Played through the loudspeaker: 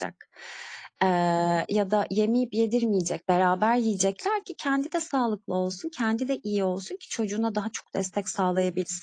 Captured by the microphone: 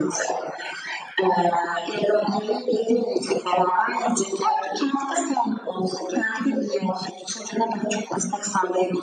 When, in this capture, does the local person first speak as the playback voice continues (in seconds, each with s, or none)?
none